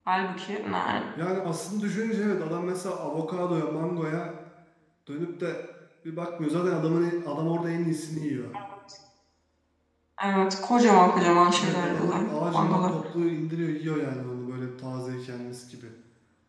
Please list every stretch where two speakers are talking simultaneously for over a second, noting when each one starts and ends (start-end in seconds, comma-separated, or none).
11.6-12.9